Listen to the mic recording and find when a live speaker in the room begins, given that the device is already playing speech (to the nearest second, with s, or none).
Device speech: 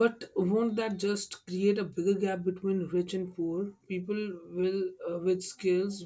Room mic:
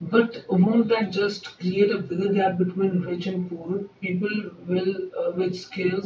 none